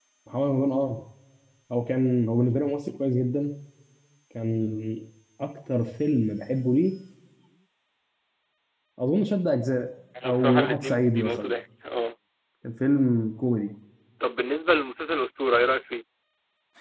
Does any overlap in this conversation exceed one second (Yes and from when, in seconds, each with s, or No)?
Yes, from 10.2 s